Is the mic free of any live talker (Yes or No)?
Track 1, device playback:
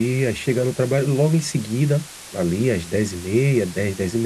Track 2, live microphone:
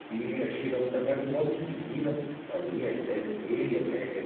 Yes